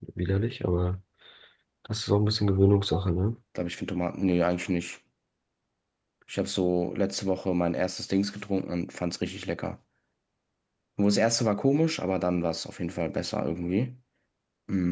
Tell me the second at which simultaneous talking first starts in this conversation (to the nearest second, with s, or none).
none